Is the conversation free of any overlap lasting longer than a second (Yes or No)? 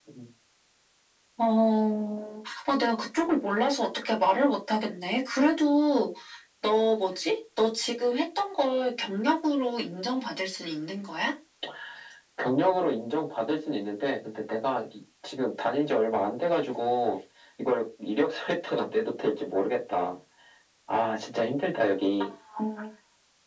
Yes